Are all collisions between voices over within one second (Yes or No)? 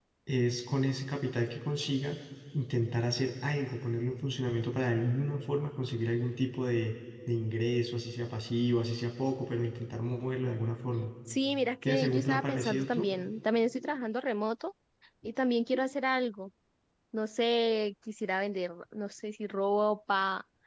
No